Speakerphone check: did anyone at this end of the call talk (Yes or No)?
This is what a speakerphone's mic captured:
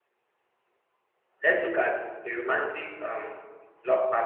Yes